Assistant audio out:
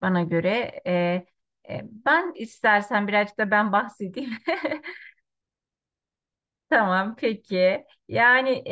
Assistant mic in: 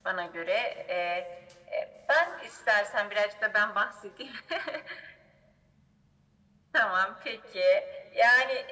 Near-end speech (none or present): none